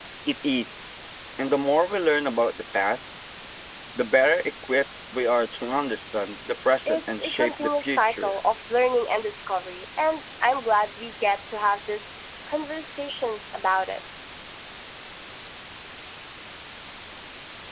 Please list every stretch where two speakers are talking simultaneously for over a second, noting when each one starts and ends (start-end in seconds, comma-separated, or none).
6.9-8.3